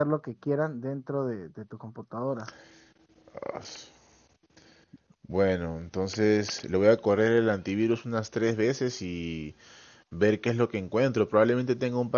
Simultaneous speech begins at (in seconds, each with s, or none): none